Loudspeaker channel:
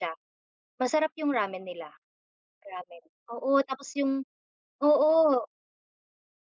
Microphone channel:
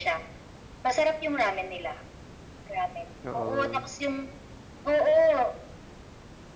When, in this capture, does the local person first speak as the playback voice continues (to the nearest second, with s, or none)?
3 s